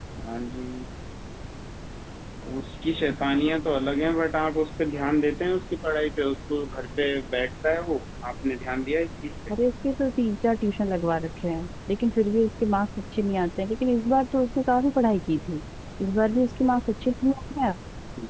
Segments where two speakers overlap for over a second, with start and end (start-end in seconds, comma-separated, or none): none